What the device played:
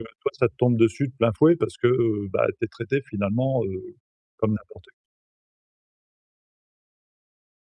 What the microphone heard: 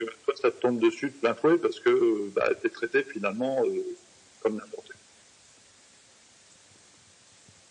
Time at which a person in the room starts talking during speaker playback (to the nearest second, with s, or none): none